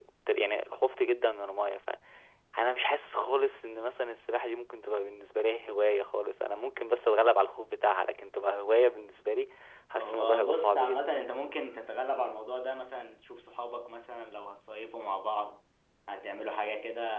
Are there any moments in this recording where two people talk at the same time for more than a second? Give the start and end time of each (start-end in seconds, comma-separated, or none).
10.0-11.2